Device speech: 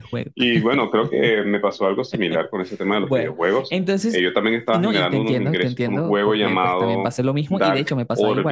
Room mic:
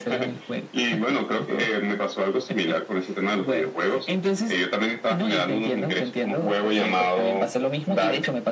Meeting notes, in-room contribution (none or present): none